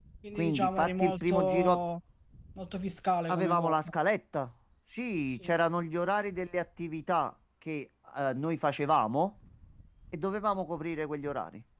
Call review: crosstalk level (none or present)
present